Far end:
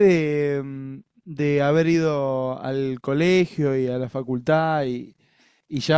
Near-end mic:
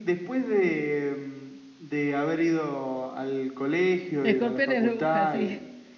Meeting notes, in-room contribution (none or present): present